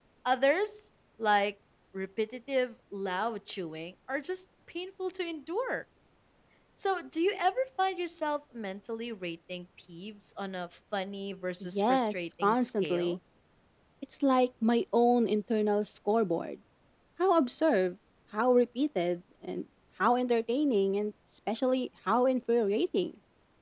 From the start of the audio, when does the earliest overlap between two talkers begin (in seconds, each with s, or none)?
11.7 s